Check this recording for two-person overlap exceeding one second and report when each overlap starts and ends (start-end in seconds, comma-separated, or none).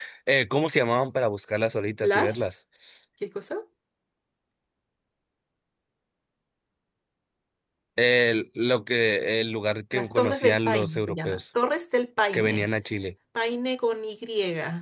9.9-11.4